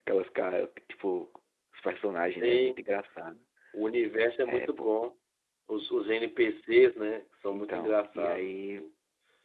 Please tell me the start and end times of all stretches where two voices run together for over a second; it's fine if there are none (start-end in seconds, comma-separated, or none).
7.5-8.8